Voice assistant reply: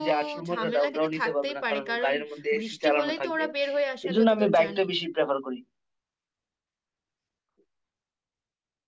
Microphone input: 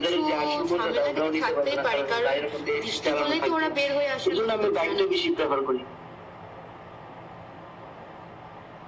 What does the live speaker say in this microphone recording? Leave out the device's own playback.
none

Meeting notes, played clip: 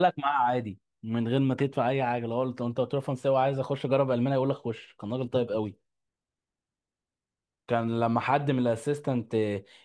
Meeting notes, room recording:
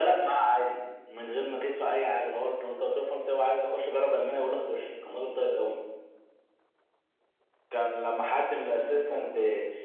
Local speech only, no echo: none

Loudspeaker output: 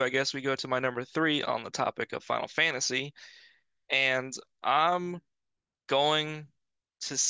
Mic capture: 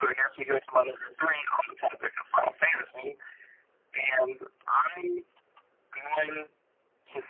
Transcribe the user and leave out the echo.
none

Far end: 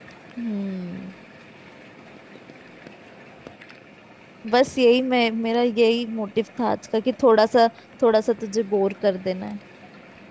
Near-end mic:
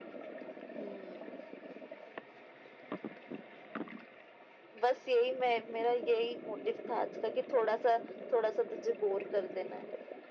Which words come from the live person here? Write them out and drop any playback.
none

